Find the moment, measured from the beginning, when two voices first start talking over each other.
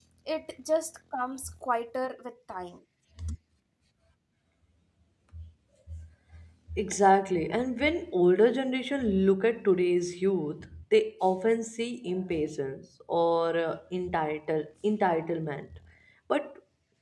none

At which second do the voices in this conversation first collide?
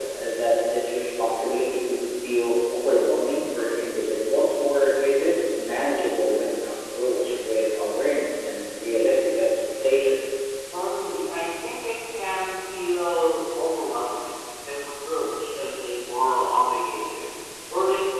none

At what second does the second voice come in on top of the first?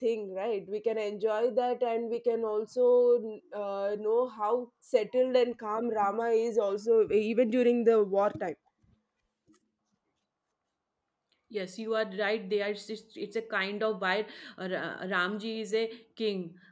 none

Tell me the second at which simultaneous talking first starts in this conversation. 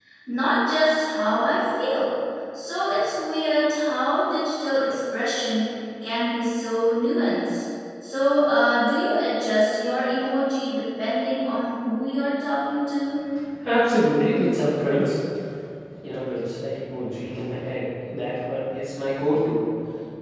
none

